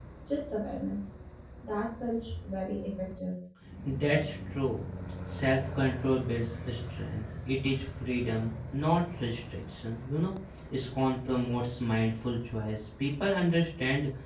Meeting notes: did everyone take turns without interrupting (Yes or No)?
Yes